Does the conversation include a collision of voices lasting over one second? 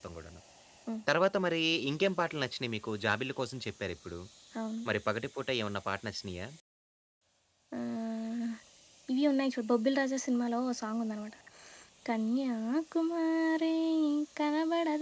No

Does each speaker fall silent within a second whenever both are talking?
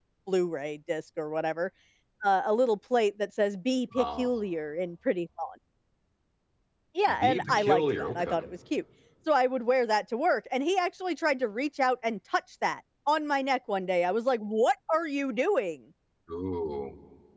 No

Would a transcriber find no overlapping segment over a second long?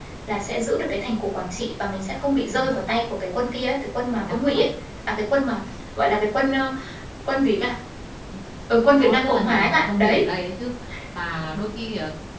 No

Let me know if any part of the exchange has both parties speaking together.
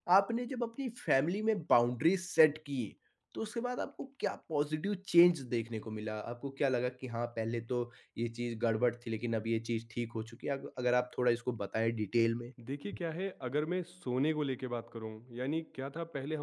No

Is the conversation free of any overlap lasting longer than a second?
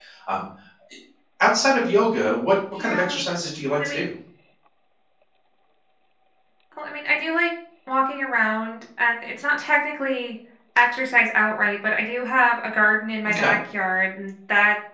Yes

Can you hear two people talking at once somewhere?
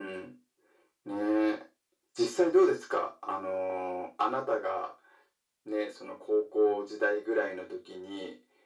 No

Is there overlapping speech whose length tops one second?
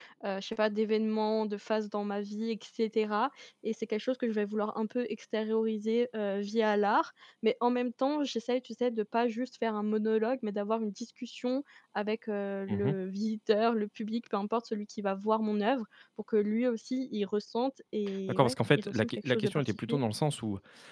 Yes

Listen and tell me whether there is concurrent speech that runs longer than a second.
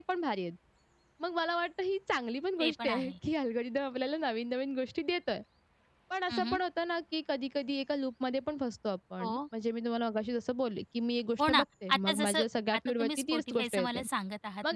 Yes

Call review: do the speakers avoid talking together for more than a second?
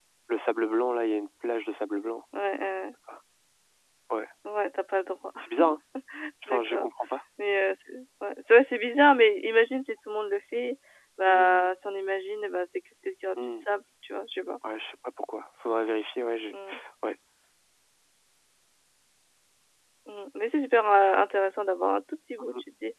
Yes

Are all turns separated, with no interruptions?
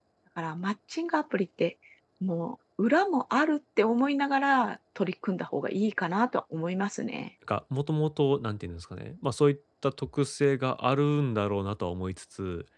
Yes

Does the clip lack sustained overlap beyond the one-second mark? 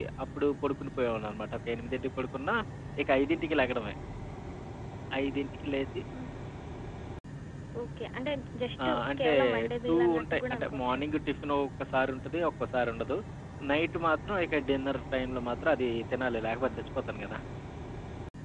No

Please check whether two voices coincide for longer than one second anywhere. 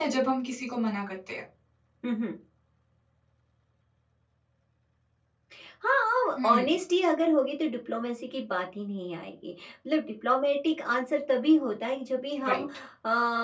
No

